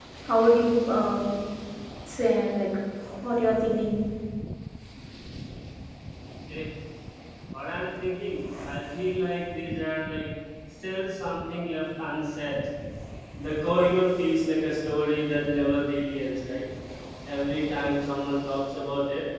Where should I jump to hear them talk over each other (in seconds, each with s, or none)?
none